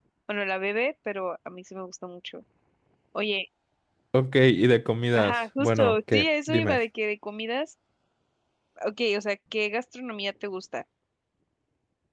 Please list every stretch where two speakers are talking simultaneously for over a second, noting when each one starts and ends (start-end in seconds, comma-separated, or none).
5.1-6.8